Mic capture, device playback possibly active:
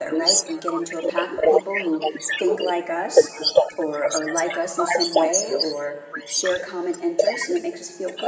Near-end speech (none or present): present